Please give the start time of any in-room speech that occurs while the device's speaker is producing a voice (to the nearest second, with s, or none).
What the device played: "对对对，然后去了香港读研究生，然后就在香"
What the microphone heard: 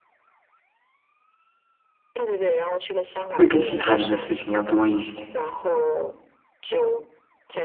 3 s